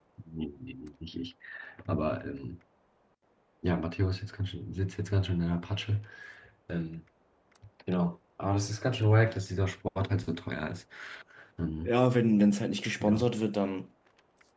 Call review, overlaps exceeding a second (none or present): none